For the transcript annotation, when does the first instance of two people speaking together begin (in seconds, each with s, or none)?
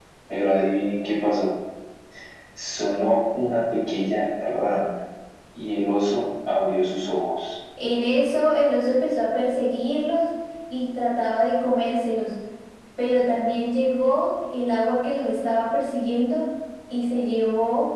none